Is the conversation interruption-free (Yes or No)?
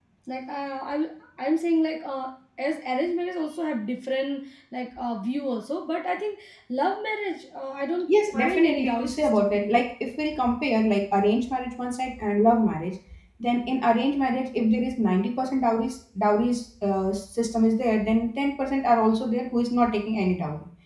No